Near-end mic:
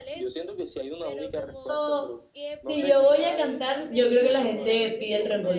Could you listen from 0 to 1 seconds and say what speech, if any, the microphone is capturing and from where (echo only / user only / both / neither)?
echo only